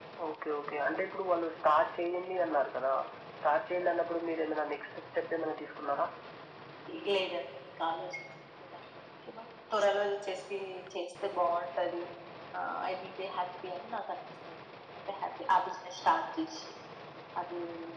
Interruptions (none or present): none